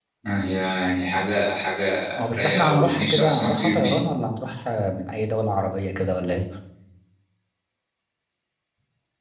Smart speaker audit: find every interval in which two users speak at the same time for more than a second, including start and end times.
2.2-4.0

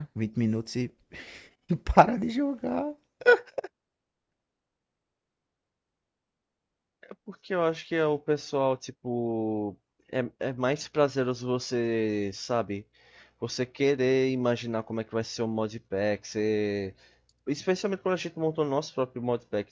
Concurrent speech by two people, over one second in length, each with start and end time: none

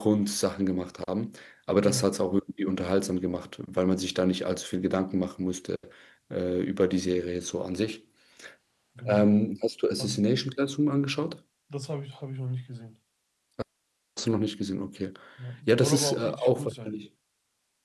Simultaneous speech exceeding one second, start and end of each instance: 15.7-16.9

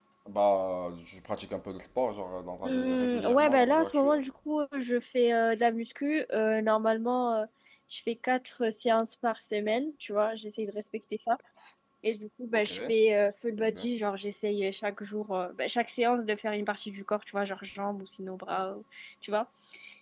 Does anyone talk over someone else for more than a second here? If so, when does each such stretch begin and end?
2.6-4.2

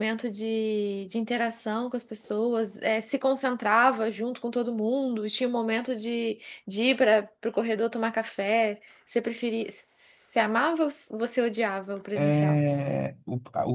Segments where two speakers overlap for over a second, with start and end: none

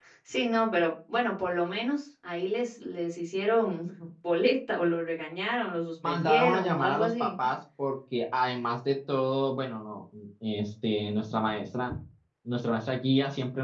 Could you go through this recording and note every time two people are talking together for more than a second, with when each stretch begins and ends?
6.0-7.3

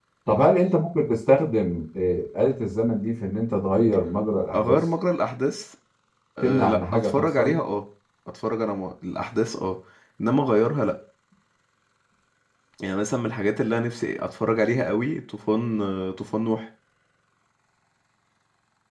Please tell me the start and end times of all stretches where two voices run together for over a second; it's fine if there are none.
6.4-7.6

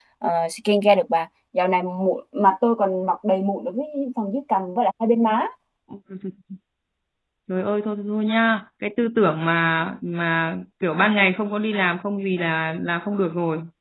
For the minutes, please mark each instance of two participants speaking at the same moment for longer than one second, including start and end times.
none

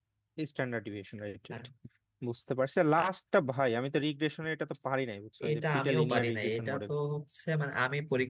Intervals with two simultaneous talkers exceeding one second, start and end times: 5.5-6.9

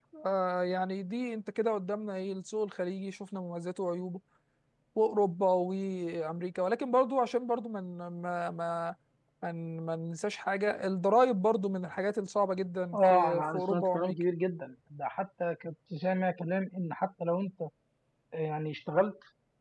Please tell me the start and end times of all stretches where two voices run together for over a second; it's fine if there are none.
12.9-14.2

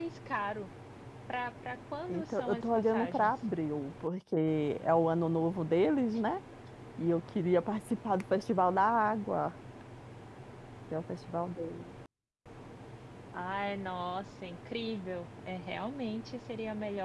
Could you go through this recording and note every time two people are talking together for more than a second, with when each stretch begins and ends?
2.1-3.3

